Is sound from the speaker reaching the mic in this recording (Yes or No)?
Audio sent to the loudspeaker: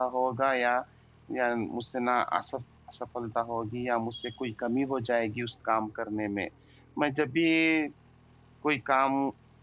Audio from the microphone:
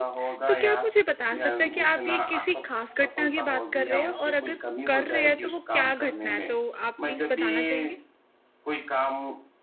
Yes